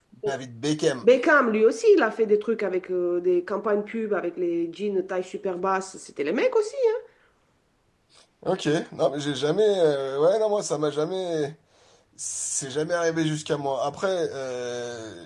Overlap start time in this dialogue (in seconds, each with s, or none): none